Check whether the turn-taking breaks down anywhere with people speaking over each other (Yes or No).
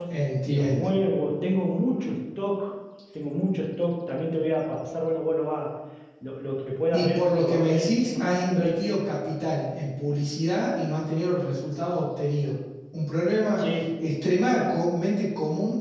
Yes